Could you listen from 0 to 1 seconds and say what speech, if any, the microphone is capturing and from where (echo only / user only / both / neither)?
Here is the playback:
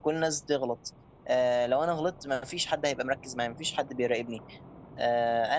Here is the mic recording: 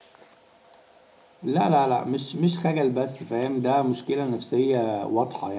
neither